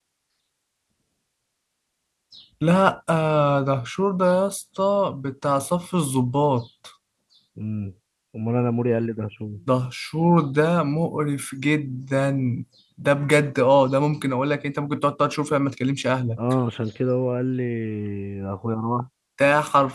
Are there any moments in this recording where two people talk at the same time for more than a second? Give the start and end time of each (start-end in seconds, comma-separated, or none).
none